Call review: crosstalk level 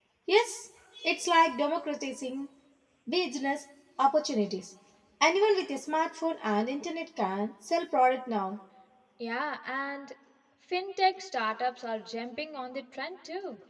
none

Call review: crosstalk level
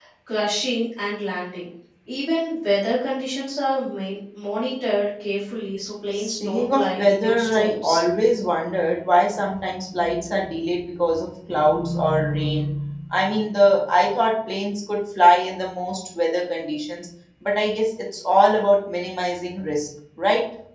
present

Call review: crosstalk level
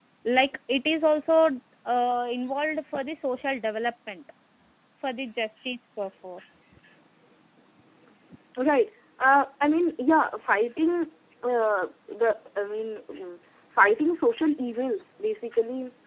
none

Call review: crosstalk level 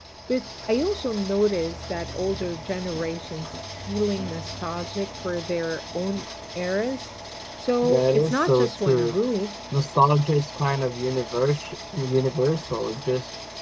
present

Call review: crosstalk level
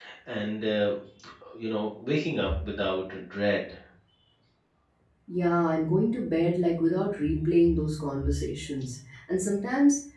none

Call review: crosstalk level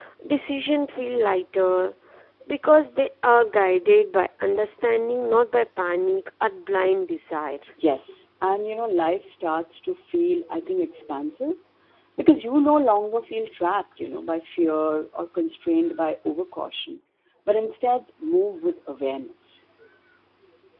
none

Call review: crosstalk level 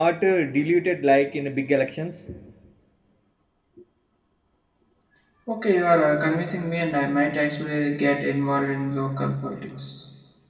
none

